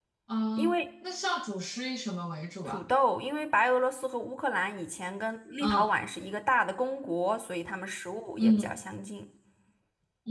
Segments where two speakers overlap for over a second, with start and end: none

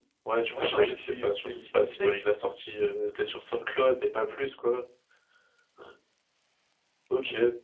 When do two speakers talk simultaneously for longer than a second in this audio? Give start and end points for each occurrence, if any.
0.5-2.1

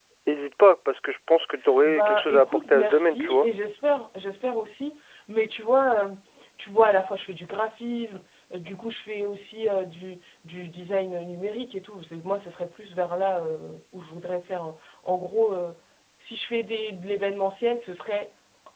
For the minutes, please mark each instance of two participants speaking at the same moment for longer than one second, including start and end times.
1.8-3.5

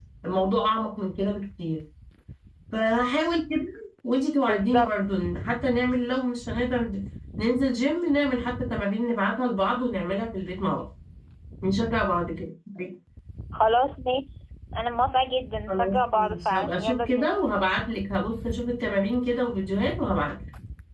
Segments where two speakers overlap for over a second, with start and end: 15.7-17.3

